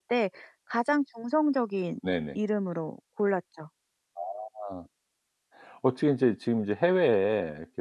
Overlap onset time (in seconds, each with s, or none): none